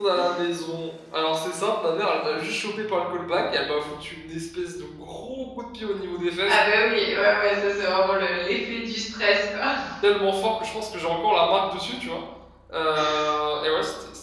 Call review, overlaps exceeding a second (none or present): none